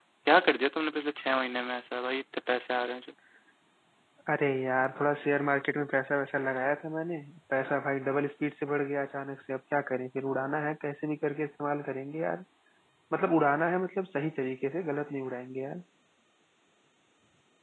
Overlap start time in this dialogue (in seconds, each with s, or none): none